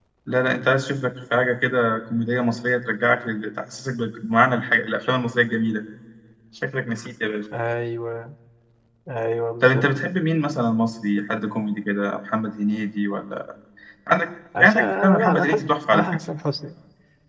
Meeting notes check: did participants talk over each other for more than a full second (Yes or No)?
Yes